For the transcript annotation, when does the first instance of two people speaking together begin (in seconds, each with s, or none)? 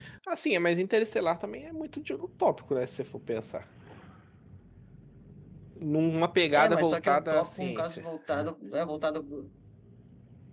6.5 s